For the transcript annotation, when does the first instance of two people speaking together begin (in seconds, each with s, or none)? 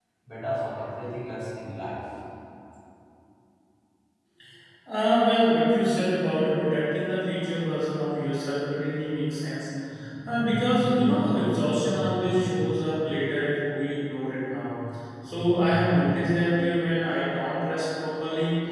none